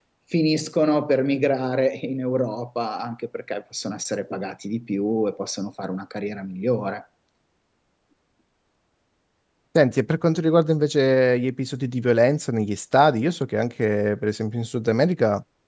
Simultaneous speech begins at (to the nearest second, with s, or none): none